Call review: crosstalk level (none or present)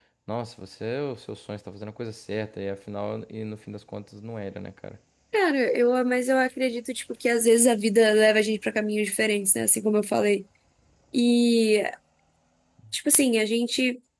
none